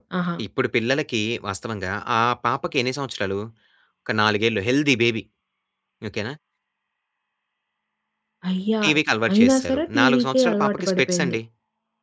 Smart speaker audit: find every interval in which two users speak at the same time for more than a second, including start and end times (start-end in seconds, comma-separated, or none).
9.3-11.4